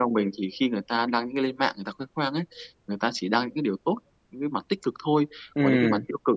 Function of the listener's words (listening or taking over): listening